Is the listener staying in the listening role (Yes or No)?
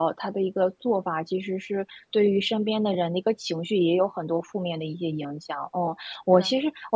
Yes